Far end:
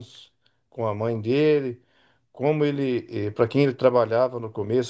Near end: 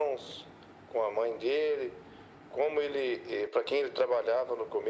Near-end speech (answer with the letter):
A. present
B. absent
B